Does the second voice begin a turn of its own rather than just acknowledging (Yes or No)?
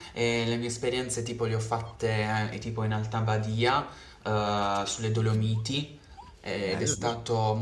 No